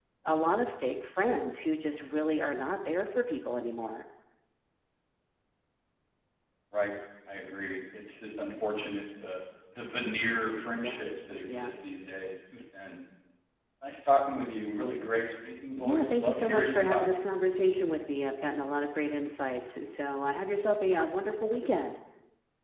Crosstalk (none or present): present